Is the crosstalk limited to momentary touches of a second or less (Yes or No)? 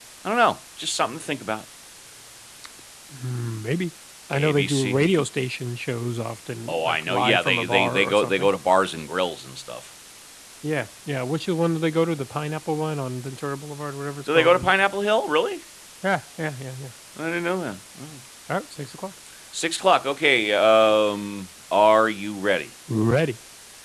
No